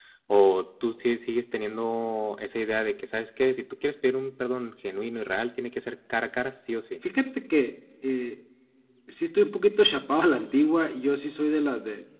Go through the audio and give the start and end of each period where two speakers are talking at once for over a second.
none

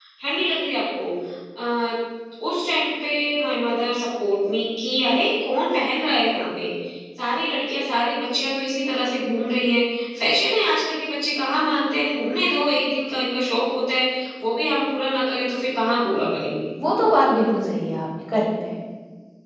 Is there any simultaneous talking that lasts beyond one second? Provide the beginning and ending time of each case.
none

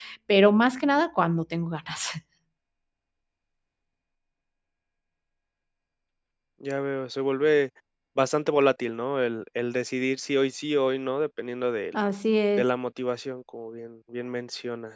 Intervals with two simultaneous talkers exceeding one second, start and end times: none

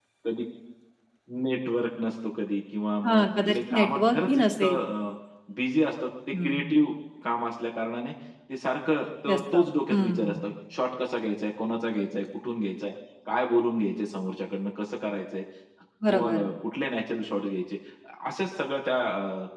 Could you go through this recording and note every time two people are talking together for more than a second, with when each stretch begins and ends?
3.0-4.8

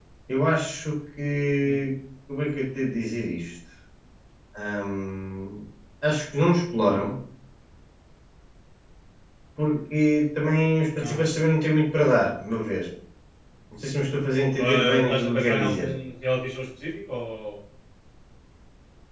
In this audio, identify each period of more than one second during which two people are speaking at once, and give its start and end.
14.6-15.9

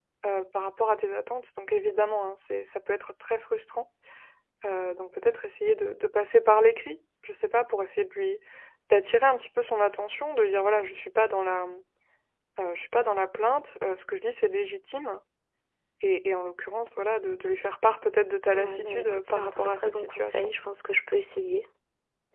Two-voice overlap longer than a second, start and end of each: 18.5-20.5

